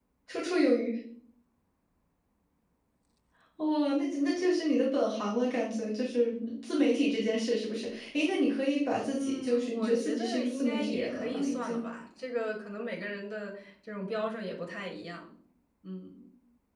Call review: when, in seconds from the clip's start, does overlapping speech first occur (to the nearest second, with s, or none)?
9 s